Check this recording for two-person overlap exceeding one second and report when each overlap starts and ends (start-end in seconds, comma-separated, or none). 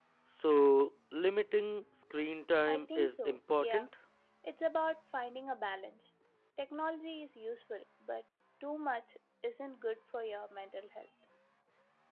2.7-3.9